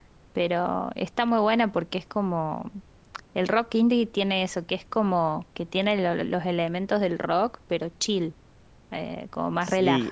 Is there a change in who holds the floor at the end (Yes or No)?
Yes